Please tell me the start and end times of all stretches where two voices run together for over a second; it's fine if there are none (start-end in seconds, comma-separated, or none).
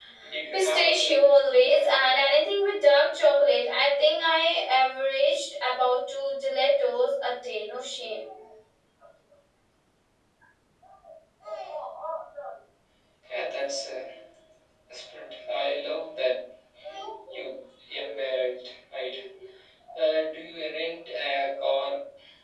0.5-1.9